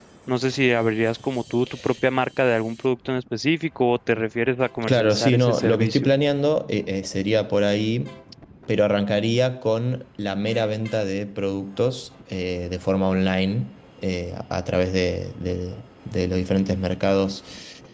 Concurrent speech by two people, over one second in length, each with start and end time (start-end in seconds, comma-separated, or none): 4.8-6.1